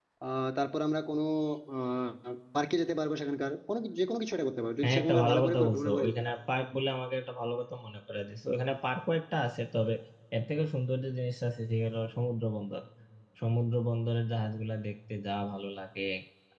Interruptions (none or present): present